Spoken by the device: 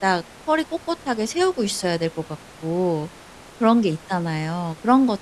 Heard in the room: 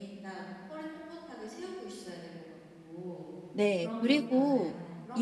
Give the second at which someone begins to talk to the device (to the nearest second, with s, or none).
4 s